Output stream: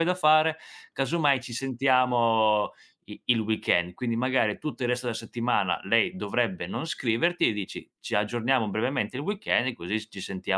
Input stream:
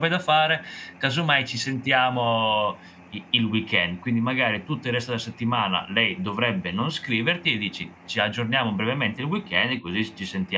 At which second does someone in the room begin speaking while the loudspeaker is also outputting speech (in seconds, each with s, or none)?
none